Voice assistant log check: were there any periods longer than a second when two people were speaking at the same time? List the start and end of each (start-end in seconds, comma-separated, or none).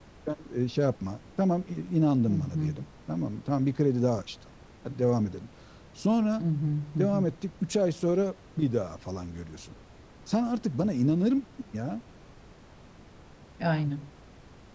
none